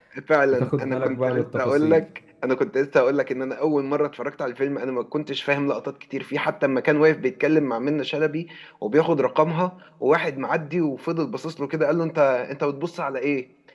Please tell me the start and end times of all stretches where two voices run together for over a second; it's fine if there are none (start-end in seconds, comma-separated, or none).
0.5-2.0